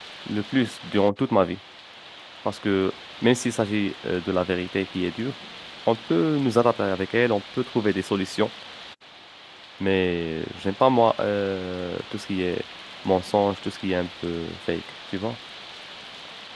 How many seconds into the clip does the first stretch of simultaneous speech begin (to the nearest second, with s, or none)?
none